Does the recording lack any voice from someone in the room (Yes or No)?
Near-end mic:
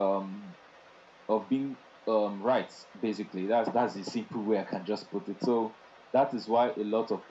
Yes